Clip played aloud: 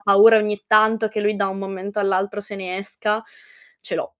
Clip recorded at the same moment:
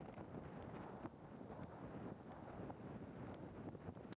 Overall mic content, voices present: neither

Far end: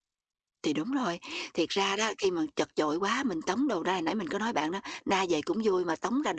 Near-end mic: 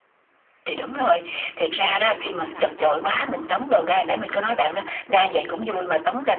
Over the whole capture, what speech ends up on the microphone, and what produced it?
both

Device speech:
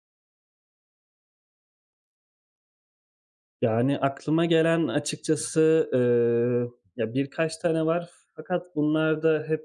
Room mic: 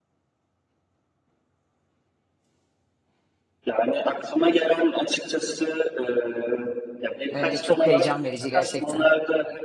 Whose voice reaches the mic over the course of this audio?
both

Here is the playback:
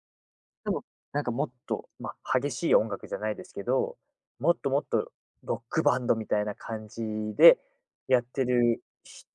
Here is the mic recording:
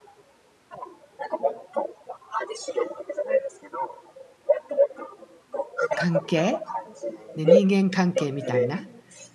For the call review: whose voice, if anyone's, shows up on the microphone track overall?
both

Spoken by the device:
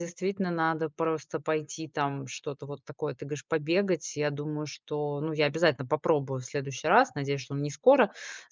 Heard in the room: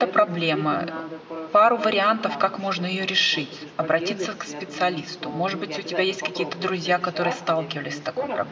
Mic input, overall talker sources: both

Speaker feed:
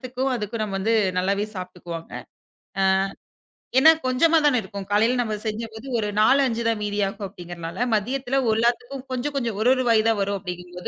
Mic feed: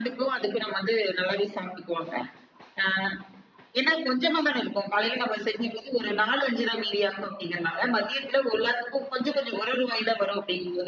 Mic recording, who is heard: echo only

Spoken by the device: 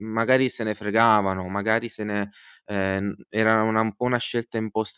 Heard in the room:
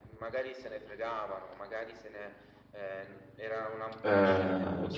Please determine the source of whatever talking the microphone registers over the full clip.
both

